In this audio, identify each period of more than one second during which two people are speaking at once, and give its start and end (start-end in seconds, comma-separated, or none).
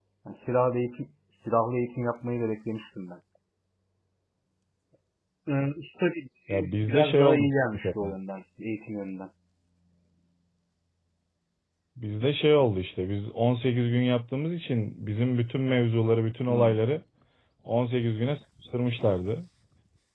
6.5-8.1